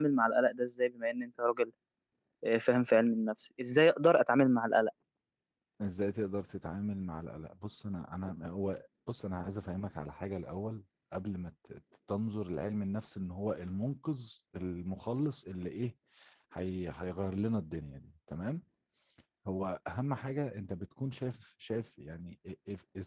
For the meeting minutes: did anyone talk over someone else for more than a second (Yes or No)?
No